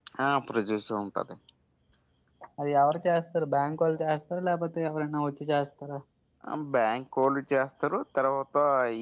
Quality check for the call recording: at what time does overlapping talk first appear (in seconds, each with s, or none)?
none